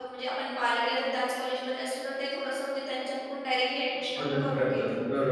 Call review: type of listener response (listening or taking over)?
taking over